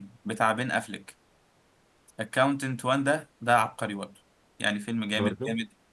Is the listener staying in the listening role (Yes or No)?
Yes